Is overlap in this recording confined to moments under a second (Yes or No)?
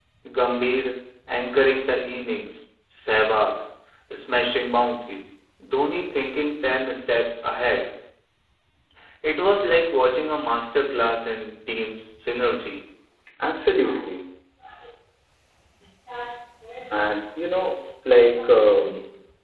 Yes